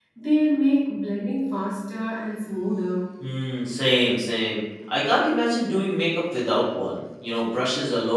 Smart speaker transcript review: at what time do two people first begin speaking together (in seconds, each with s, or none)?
none